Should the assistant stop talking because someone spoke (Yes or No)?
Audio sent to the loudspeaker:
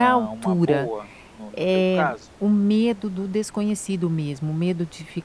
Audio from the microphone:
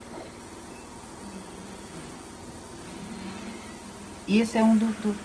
Yes